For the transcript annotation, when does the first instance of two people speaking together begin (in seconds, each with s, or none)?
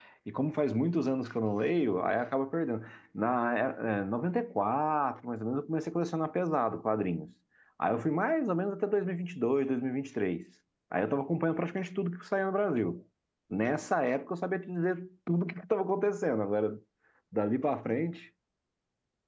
none